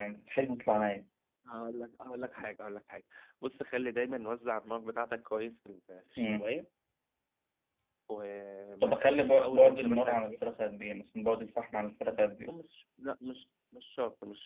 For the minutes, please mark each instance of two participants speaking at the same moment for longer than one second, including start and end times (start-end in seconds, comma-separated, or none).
8.8-10.2